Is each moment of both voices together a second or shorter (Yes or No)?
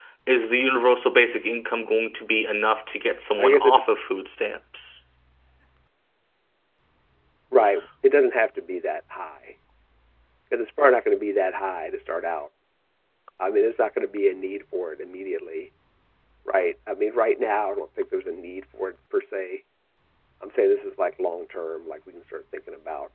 Yes